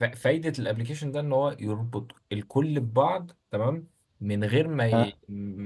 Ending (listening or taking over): listening